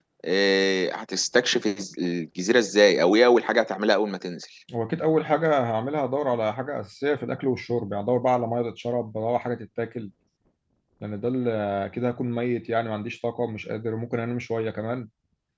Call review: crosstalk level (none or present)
none